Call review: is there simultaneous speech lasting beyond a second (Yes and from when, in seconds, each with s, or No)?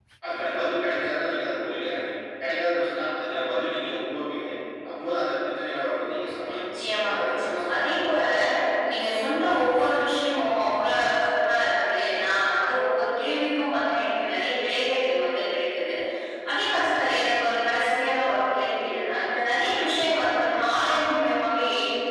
Yes, from 6.4 s